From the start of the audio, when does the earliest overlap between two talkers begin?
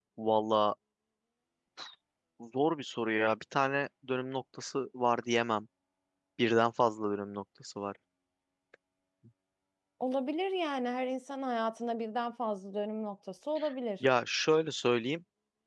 none

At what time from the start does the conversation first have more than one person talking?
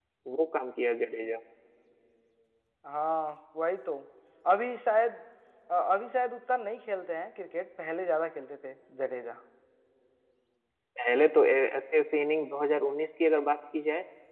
none

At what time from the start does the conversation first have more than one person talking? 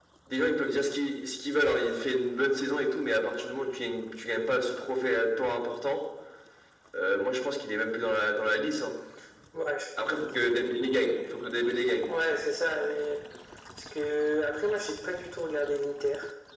none

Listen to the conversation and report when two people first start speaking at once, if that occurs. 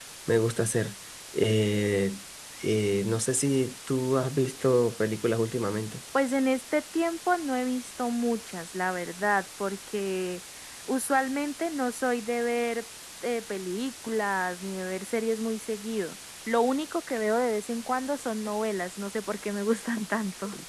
none

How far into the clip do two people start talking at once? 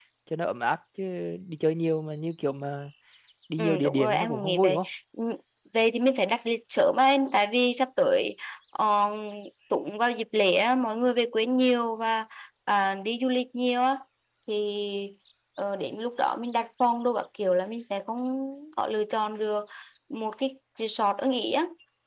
3.6 s

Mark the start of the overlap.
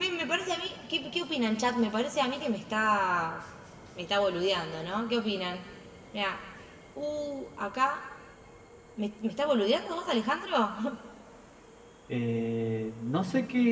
none

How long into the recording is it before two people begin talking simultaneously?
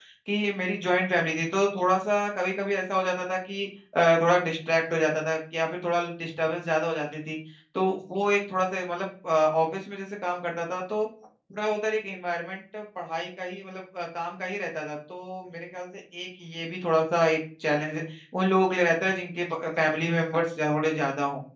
none

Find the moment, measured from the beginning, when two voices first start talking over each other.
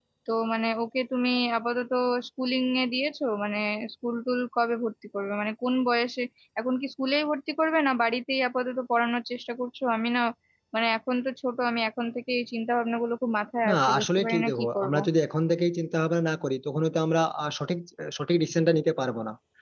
13.6 s

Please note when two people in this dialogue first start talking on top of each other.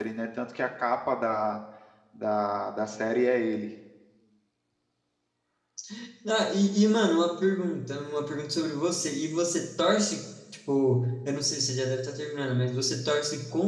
none

